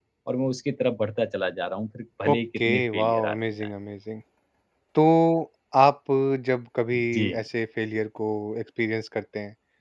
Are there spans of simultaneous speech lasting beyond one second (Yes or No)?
Yes